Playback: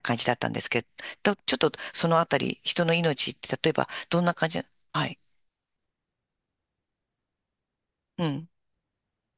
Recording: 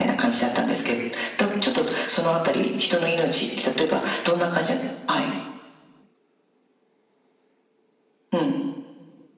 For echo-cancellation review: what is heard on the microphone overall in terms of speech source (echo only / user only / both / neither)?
echo only